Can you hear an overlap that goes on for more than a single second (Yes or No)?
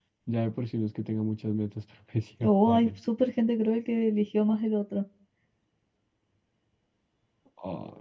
No